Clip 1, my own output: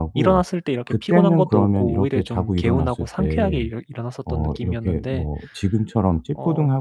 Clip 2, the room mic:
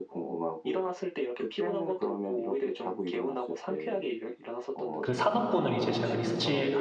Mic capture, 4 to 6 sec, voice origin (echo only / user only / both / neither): both